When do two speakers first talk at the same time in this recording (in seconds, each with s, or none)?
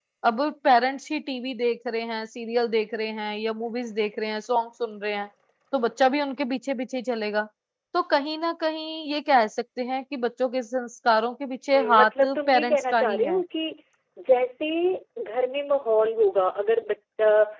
11.7 s